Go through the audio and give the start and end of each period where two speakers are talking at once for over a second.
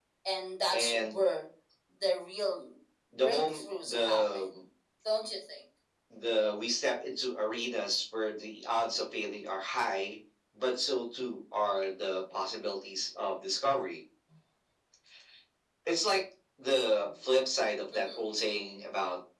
3.1-4.4

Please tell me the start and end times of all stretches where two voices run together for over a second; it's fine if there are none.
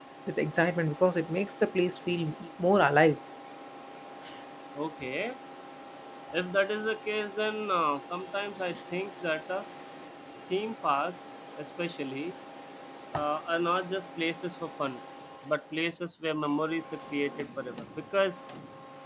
none

